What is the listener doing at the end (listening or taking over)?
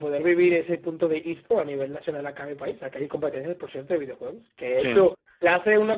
listening